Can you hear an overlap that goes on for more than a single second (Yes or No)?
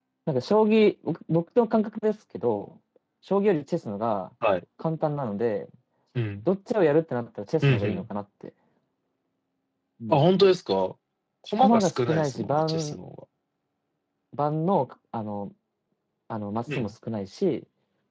Yes